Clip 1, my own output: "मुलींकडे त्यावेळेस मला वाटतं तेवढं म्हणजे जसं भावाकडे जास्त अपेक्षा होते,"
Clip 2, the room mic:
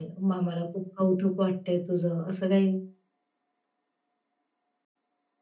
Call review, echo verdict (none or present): none